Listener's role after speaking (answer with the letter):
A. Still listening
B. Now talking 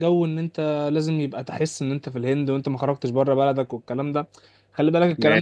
A